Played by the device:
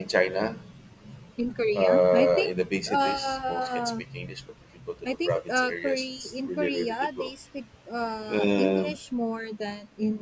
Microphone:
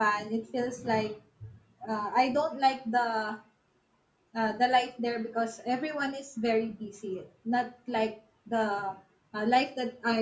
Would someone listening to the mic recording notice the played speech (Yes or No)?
No